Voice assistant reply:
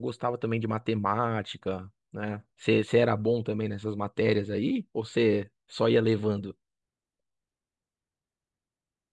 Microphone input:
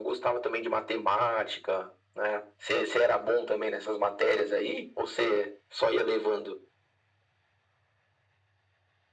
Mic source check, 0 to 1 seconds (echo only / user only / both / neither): echo only